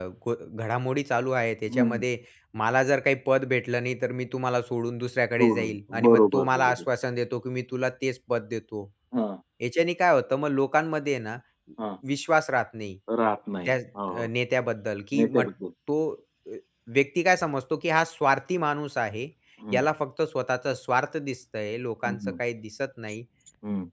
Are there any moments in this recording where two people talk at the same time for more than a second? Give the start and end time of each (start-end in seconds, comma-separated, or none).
5.4-6.8